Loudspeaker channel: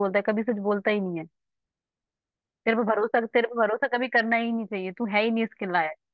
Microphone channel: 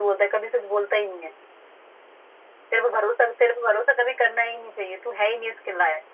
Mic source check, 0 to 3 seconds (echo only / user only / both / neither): echo only